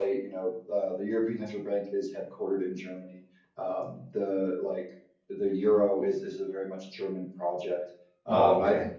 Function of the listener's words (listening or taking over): listening